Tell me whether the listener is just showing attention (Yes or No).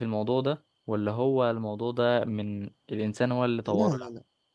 No